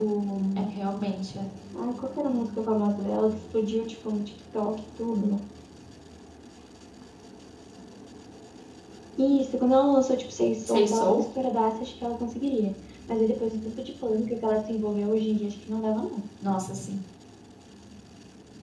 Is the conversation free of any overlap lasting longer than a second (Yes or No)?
Yes